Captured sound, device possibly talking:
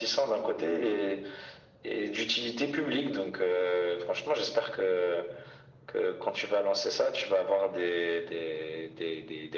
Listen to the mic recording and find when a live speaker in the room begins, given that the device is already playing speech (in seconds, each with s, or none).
none